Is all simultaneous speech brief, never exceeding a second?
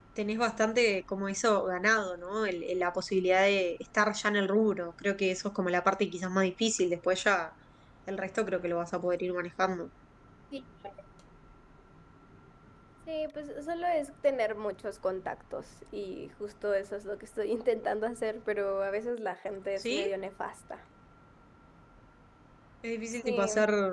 Yes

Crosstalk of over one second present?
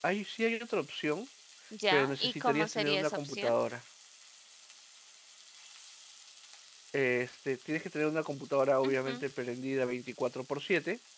Yes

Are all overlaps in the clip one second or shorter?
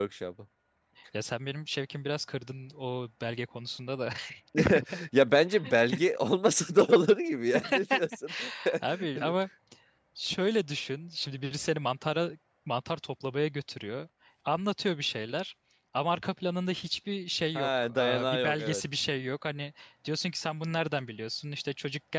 No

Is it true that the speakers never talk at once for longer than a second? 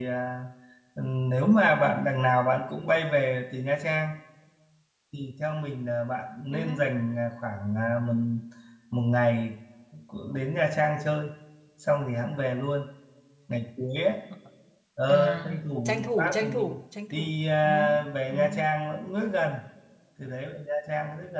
No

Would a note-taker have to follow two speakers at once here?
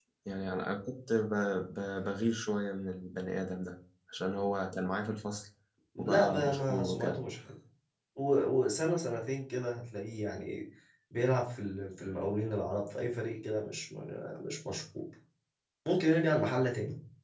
Yes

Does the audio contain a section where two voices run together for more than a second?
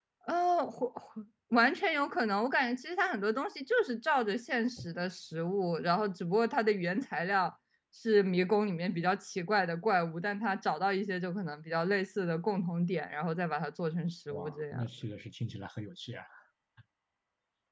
No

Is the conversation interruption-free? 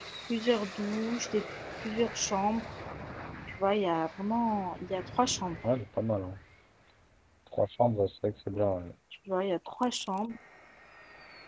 Yes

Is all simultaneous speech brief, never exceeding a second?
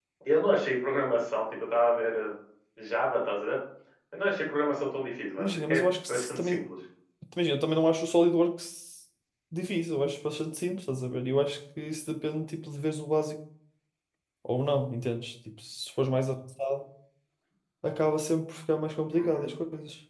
No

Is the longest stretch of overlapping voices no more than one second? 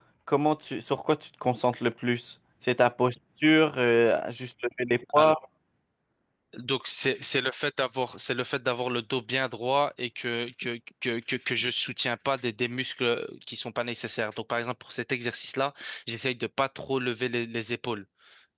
Yes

